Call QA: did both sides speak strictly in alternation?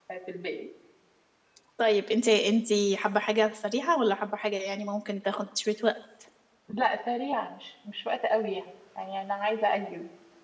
Yes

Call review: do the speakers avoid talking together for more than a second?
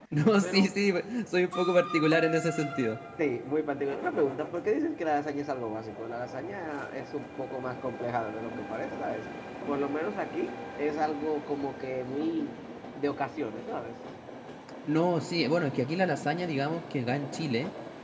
Yes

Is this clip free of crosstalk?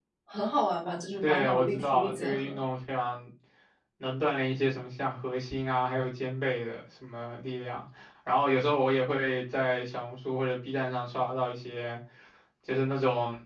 No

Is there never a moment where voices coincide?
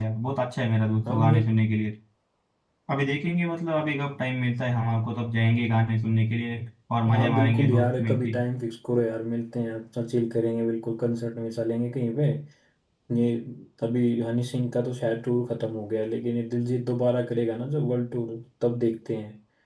No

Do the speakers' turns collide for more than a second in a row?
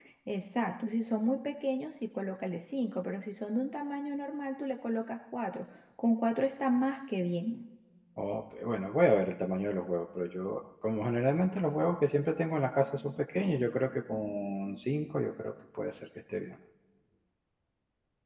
No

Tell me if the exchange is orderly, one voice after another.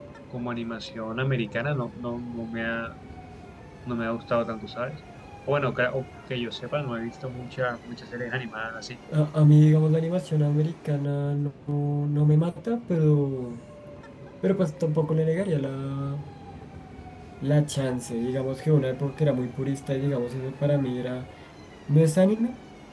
Yes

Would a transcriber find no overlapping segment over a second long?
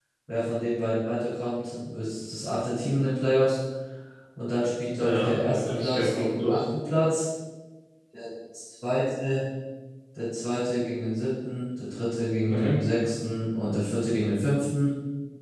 No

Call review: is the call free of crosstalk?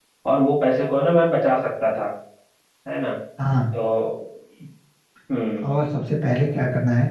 Yes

